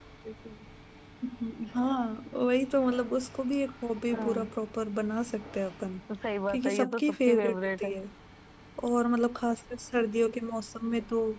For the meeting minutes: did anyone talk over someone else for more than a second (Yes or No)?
Yes